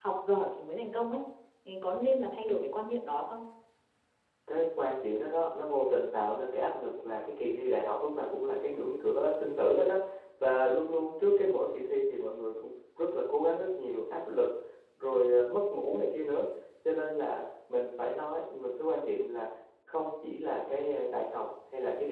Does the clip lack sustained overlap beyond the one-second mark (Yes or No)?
Yes